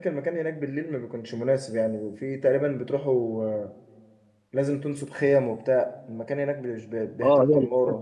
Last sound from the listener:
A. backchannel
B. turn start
B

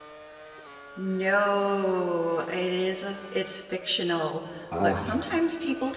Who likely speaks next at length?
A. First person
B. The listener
A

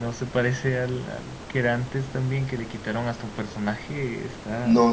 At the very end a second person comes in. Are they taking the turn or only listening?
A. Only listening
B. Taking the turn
B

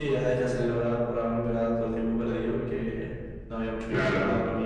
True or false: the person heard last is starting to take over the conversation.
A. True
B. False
B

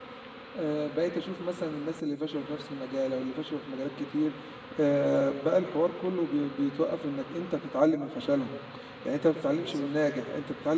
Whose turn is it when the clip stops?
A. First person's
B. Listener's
A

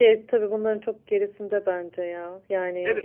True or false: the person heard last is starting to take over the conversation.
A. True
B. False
A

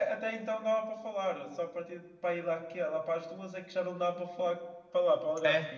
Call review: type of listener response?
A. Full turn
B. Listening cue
A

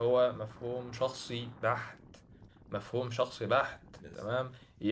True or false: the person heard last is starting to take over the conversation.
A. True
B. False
B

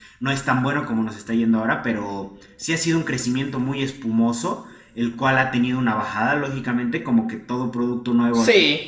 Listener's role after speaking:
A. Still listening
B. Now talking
A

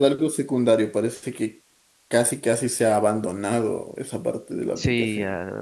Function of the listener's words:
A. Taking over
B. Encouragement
A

